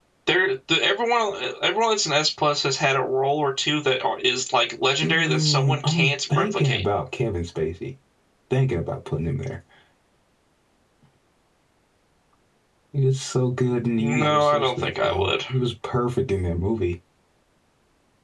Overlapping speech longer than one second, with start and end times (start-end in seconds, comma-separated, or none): 5.0-6.8, 14.0-15.3